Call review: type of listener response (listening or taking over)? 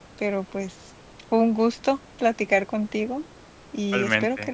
listening